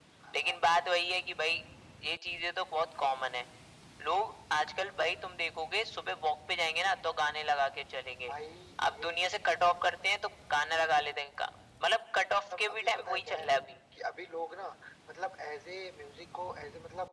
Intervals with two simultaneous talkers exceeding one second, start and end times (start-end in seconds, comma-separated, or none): 12.3-13.5